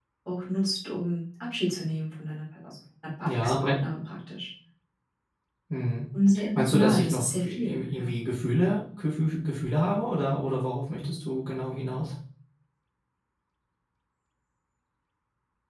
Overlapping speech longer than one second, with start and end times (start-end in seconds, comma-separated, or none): 6.5-8.1